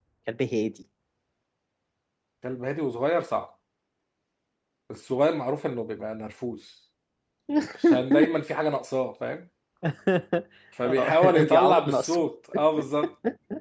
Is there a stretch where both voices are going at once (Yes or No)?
Yes